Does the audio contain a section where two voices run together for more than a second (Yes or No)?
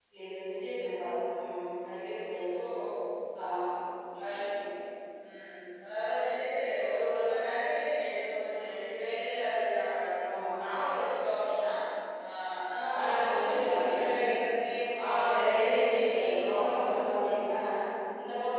Yes